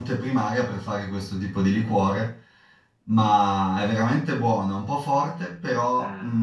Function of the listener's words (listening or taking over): listening